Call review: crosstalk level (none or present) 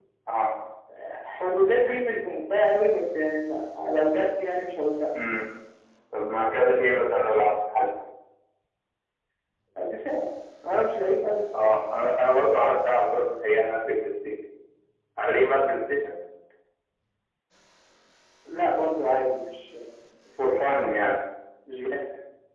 none